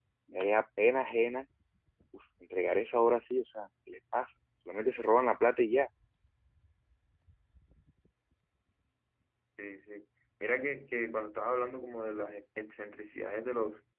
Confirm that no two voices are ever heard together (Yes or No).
Yes